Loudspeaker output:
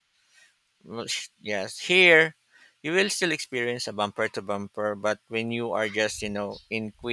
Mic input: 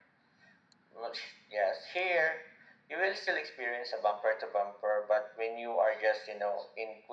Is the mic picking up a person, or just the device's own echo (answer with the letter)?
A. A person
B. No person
B